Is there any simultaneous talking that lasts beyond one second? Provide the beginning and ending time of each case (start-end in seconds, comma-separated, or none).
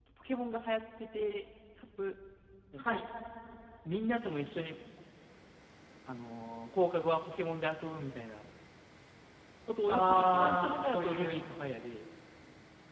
9.9-11.3